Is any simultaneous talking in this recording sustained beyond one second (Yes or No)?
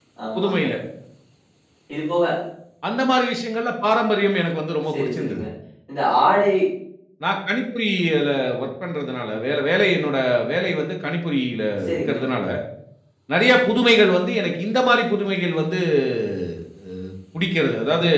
No